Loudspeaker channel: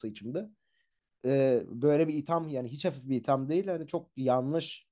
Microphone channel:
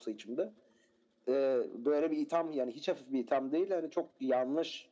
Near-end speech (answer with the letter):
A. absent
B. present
A